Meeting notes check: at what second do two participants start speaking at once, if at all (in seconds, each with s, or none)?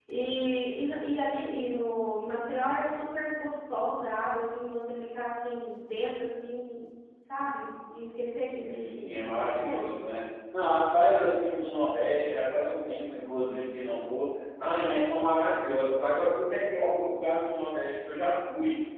8.5 s